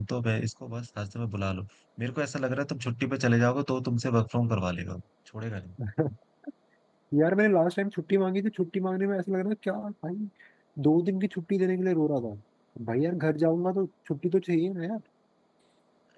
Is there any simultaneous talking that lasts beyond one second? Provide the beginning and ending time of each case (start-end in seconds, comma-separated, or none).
none